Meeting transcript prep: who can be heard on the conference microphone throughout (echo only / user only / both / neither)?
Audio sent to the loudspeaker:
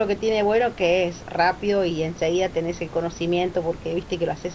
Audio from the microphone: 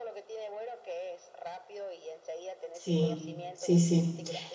both